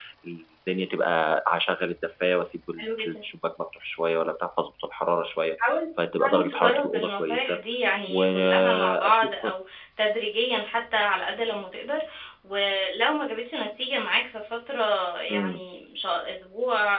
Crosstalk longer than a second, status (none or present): present